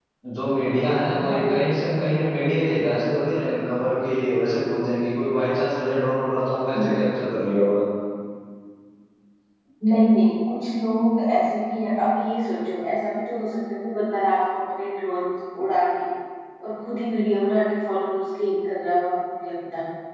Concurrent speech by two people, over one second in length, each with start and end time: none

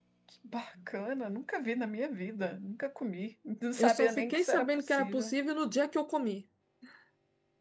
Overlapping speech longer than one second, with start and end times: 3.8-5.3

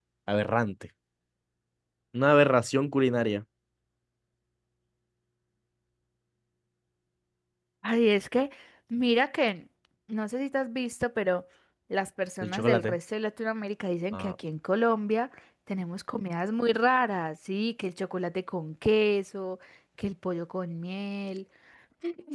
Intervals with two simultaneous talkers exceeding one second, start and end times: none

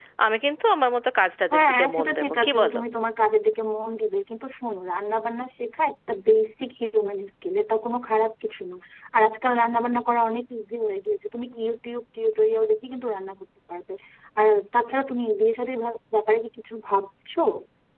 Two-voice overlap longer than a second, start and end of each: 1.5-2.8

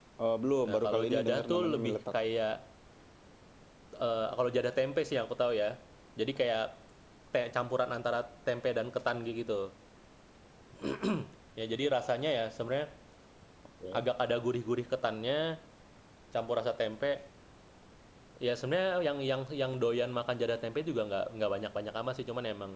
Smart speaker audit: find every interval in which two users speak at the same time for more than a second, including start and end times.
0.7-2.0

